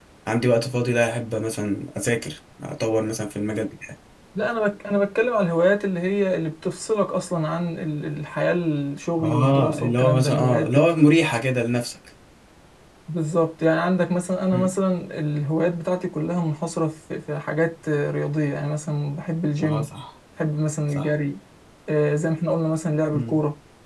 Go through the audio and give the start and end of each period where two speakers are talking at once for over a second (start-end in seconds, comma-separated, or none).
9.2-10.7